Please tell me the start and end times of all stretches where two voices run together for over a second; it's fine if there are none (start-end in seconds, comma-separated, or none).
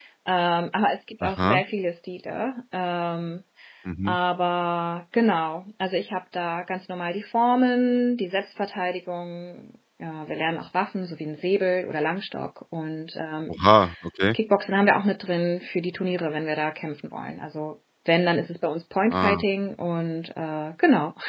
none